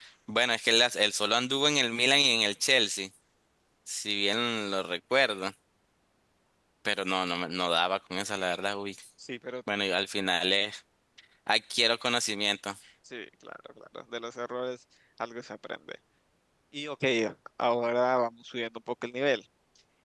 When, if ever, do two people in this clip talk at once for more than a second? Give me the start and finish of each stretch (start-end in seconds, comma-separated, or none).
none